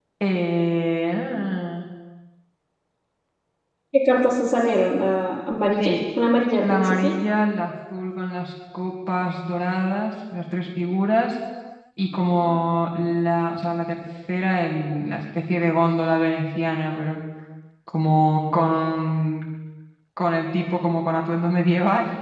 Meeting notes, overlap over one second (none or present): none